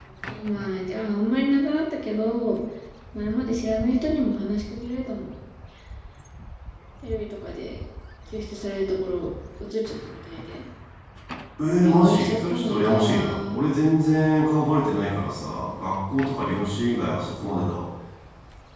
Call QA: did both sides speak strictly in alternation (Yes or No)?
No